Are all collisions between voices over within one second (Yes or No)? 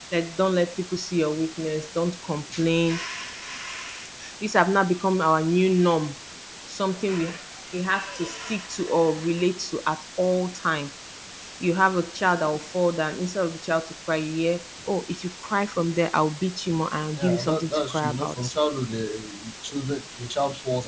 No